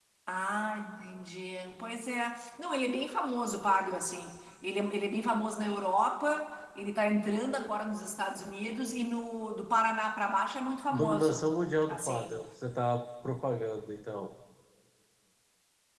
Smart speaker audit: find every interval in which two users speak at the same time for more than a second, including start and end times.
none

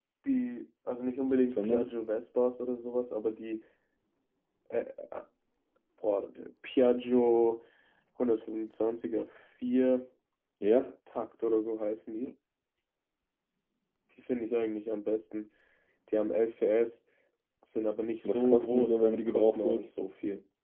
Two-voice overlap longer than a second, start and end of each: 18.2-19.9

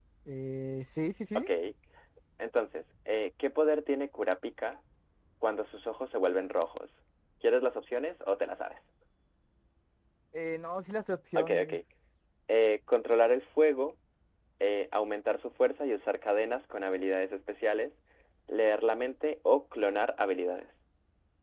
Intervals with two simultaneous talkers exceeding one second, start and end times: none

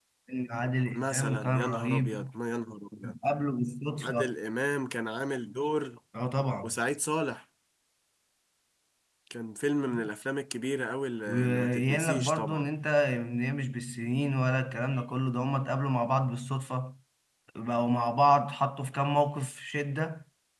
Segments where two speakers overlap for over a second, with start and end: 0.9-2.3, 11.3-12.7

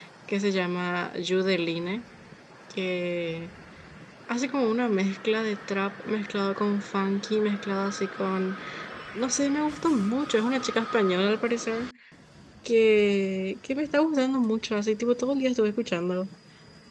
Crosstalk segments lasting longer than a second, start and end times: none

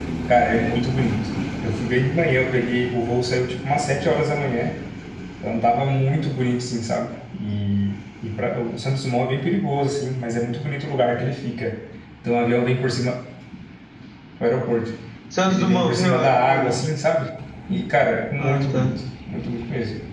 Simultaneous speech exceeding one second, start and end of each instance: 15.5-16.8

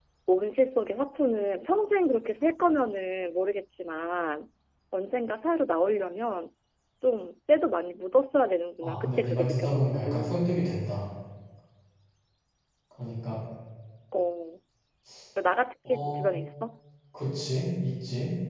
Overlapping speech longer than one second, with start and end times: 8.8-10.4

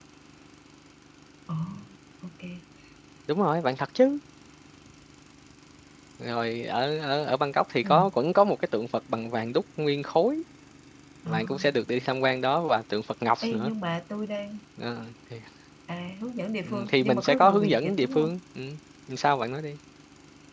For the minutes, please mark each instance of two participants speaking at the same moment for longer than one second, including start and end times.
16.6-18.3

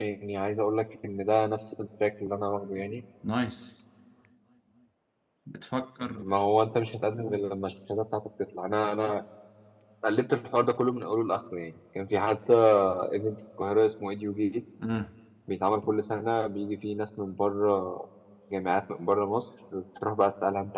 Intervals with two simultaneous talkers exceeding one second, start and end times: none

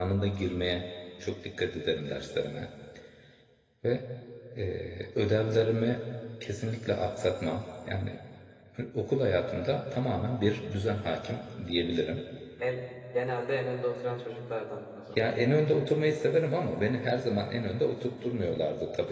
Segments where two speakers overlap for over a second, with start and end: none

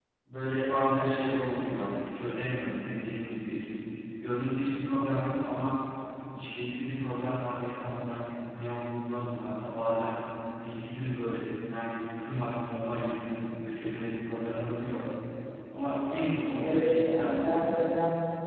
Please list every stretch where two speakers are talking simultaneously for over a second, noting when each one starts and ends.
16.6-17.9

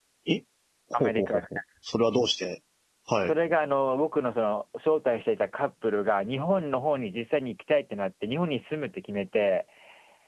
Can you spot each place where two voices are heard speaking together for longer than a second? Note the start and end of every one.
none

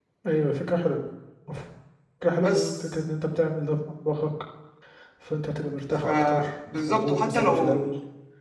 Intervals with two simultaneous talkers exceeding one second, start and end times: 6.0-7.8

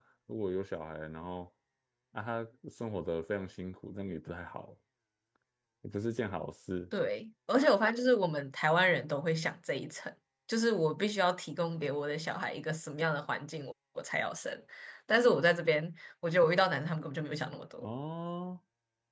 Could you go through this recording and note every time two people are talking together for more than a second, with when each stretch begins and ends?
none

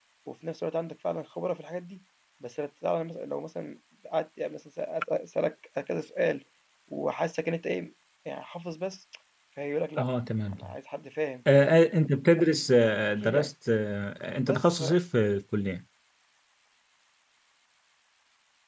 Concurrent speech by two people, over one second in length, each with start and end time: none

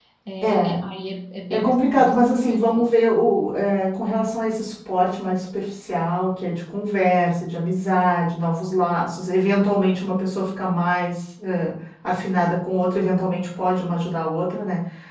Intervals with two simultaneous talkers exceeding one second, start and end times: 1.5-2.8

